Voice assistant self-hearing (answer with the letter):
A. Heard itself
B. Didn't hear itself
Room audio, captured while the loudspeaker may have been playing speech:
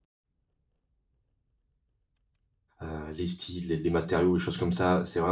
B